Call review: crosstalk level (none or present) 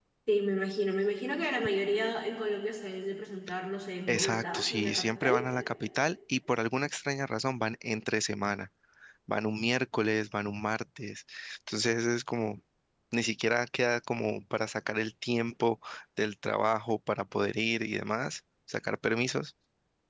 present